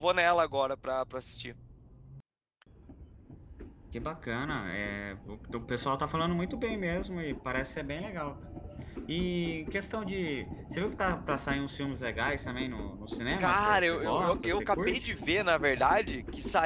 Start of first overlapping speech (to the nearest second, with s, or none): 13 s